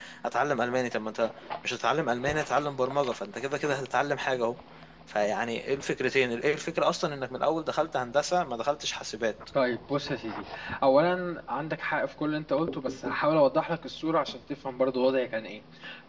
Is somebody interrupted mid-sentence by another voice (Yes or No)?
No